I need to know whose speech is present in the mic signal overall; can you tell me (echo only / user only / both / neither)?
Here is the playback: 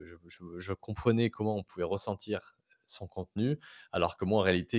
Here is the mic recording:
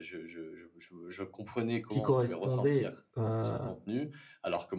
both